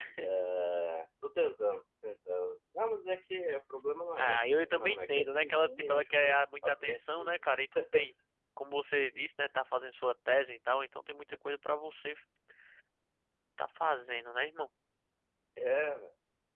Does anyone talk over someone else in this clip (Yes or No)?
Yes